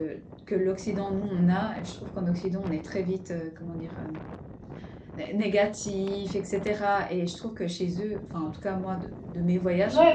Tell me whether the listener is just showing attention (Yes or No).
No